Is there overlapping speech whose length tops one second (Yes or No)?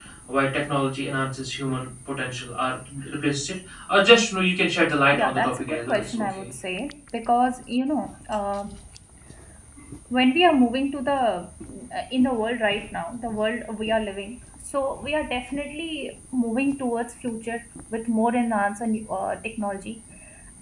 Yes